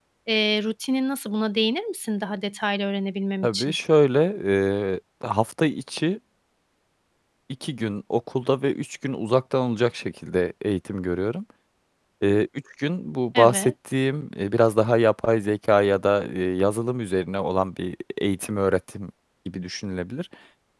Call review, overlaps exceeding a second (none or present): none